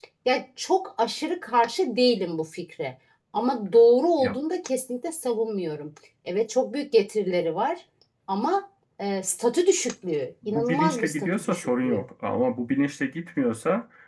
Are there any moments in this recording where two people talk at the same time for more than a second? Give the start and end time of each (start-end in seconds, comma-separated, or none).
10.4-12.1